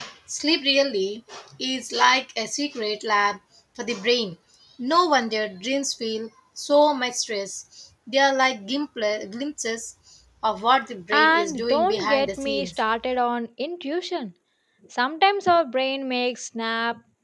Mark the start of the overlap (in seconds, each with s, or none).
11.1 s